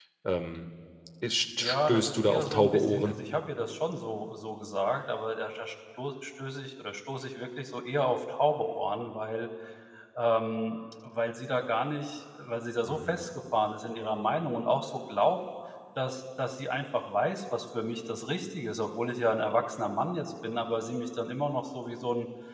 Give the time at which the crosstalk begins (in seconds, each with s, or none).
1.6 s